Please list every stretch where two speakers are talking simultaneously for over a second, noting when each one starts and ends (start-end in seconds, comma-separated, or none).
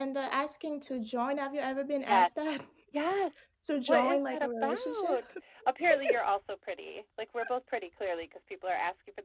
3.9-5.2